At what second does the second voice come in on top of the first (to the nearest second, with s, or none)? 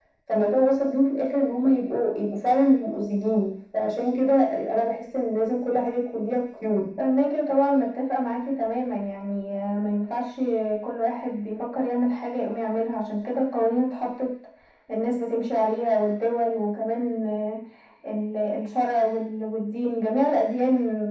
none